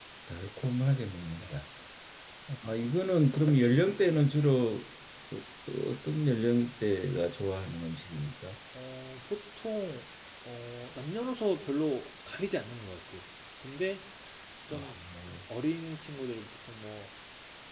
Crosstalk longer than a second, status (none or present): none